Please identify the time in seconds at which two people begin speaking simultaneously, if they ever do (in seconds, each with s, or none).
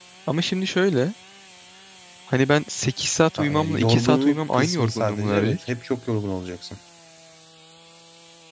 3.3 s